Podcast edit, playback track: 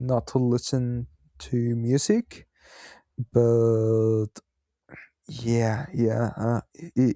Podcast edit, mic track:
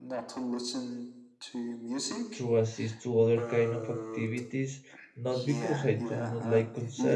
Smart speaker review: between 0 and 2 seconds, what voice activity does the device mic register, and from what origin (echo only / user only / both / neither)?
echo only